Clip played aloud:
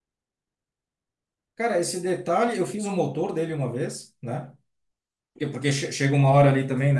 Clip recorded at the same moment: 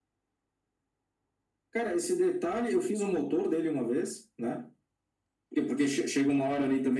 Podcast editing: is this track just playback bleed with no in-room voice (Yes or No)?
Yes